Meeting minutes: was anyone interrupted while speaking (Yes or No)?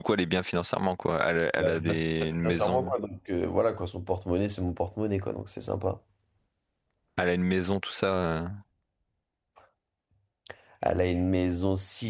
Yes